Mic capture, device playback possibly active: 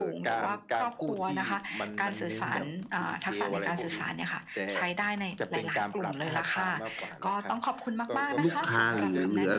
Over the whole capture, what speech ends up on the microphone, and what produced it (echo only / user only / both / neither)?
both